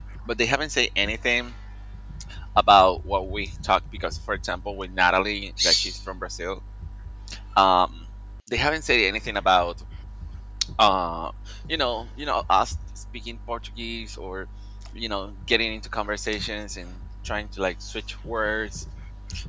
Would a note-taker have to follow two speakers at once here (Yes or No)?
No